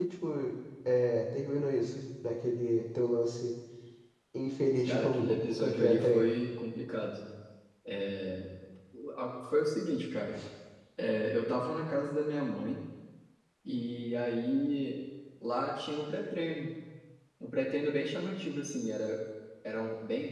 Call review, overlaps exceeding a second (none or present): present